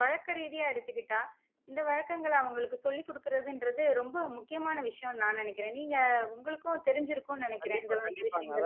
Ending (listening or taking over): taking over